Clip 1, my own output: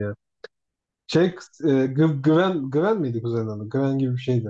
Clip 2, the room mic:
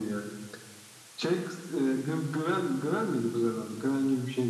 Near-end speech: none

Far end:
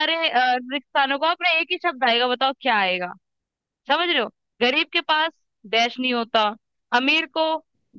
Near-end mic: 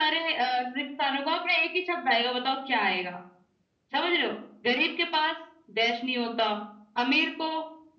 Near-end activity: none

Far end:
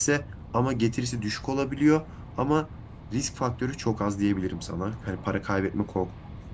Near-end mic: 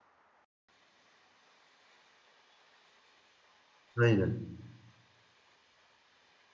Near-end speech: present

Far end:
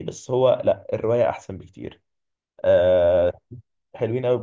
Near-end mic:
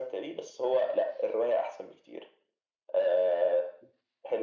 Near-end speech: none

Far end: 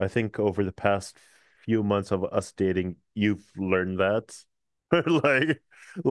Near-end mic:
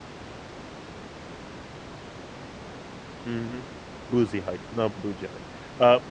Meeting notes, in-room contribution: present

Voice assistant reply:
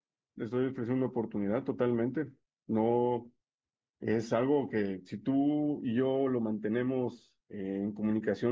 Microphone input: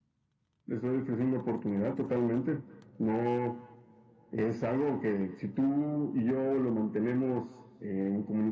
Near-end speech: none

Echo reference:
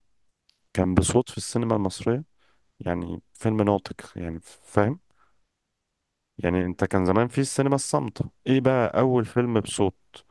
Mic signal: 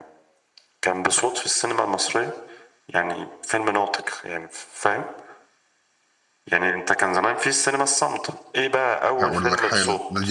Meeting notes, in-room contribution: present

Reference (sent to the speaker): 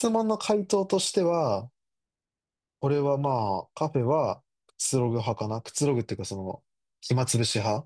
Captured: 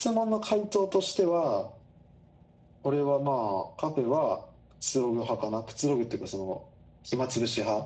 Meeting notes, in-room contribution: none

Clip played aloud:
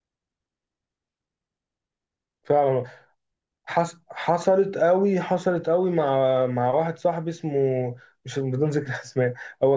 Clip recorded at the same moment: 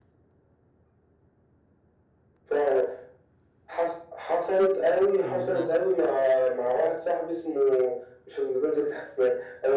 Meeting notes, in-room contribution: present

